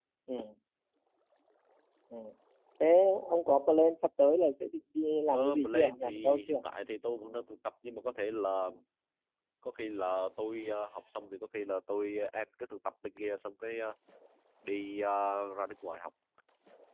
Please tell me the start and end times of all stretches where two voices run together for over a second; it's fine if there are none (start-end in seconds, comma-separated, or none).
5.3-6.6